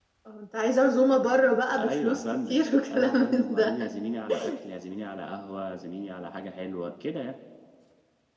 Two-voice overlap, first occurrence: 1.8 s

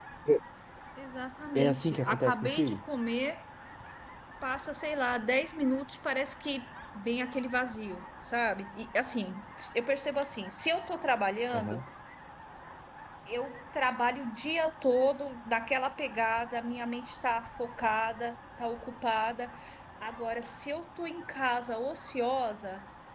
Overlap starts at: 1.6 s

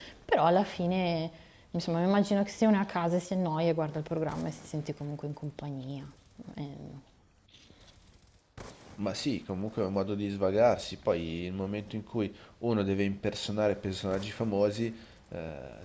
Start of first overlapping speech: none

